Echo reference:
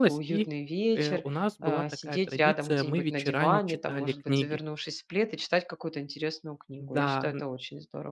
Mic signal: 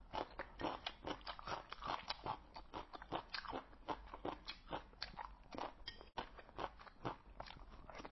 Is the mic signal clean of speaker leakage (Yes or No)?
Yes